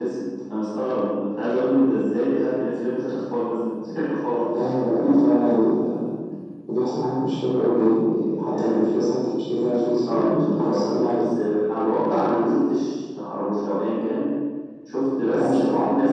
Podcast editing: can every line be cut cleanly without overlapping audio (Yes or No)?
No